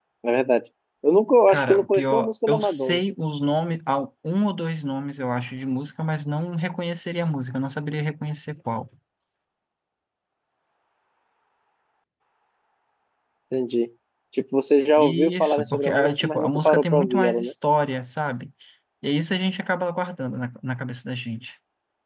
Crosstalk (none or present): present